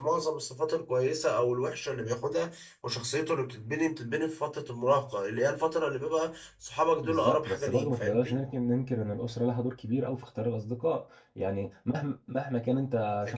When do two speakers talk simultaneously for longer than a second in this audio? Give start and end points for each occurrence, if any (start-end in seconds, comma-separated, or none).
7.0-8.4